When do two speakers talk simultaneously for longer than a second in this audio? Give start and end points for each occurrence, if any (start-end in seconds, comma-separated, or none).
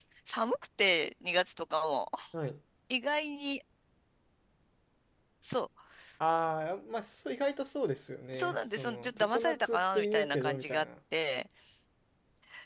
8.3-10.9